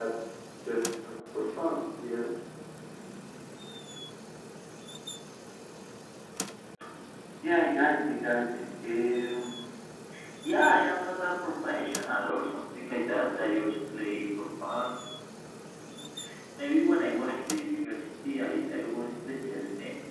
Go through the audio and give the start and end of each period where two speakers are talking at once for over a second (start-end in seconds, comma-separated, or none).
none